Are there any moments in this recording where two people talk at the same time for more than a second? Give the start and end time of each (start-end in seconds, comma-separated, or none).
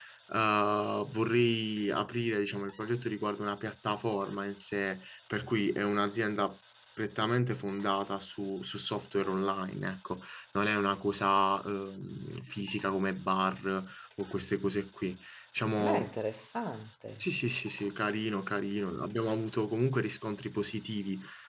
none